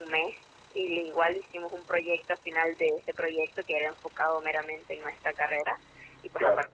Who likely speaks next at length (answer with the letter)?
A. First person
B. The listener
A